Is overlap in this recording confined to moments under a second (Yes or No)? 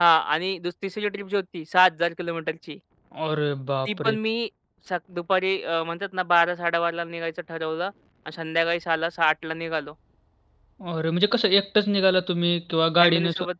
Yes